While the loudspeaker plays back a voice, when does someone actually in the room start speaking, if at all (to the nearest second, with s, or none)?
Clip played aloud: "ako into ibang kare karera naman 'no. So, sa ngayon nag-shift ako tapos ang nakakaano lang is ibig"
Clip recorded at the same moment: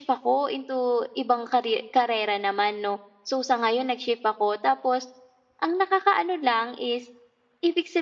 none